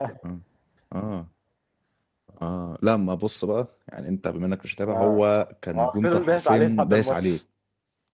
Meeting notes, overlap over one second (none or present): present